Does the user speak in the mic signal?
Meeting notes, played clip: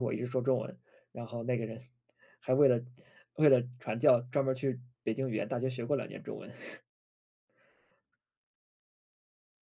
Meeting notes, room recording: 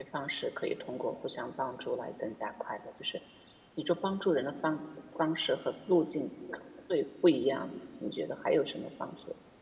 Yes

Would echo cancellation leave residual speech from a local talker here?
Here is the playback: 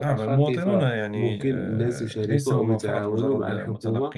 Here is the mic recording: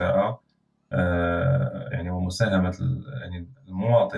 Yes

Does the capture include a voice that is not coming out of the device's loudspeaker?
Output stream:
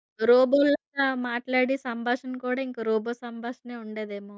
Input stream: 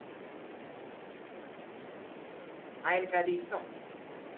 Yes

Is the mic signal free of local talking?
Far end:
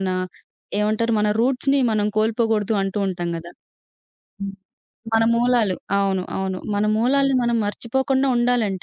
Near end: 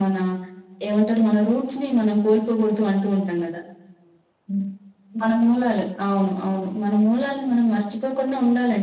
Yes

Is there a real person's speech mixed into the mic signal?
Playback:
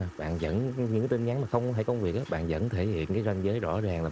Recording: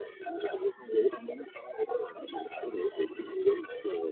No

